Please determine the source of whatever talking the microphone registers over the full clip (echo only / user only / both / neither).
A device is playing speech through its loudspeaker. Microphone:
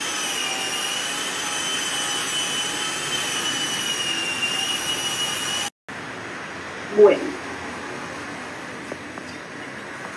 user only